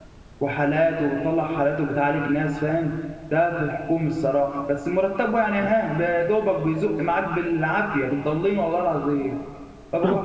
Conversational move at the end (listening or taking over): taking over